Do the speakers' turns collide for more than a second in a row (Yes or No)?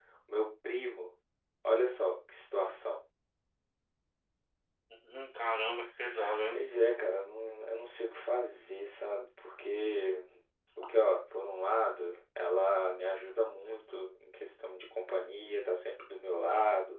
No